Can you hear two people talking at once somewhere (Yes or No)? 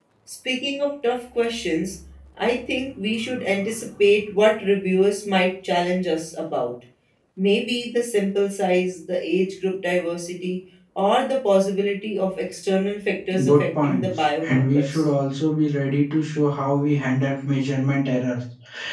Yes